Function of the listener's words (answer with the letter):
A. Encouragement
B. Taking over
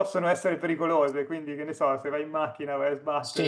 B